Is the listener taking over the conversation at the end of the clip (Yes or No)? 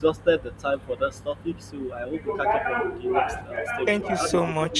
Yes